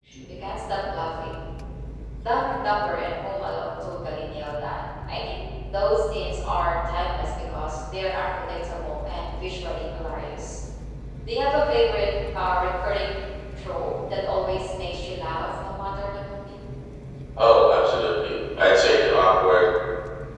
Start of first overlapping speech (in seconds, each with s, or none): none